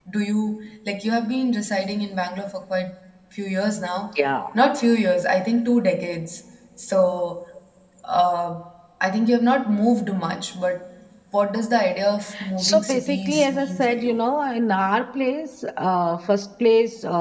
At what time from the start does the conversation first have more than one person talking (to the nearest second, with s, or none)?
13 s